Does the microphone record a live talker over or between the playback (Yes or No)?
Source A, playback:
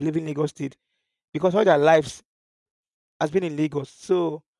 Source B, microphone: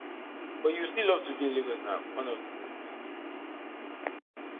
Yes